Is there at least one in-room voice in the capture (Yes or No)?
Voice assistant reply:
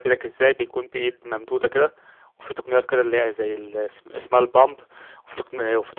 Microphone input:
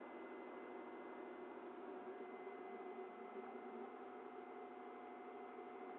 No